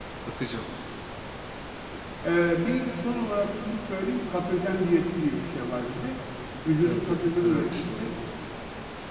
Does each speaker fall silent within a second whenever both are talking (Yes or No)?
No